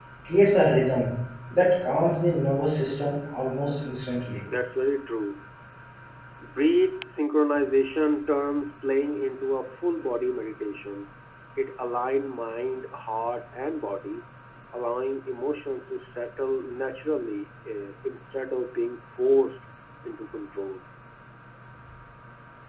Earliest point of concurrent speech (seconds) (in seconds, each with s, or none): none